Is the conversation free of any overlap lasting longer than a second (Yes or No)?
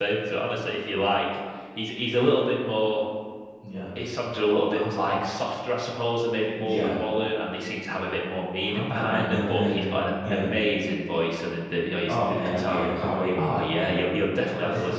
No